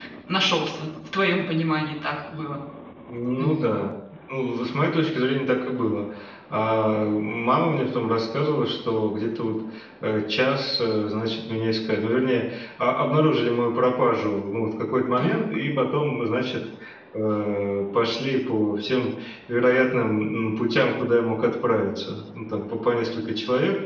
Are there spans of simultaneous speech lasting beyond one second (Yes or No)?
No